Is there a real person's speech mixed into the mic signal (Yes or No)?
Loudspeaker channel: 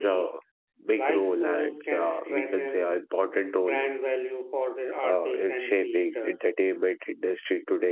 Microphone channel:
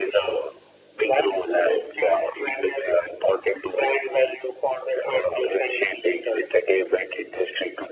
No